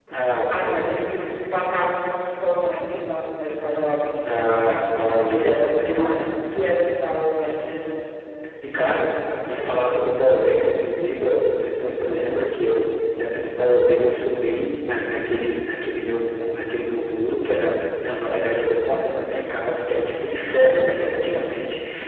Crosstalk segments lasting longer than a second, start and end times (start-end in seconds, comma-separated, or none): 4.2-5.7